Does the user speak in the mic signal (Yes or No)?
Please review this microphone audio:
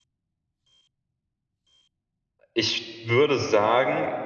Yes